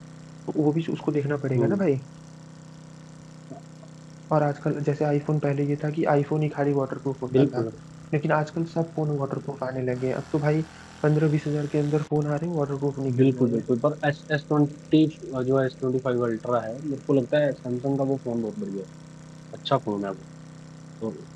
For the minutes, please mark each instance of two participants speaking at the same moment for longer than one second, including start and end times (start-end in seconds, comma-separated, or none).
none